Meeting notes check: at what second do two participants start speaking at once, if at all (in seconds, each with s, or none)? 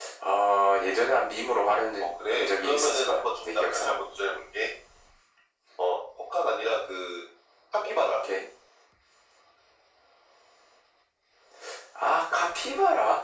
2.0 s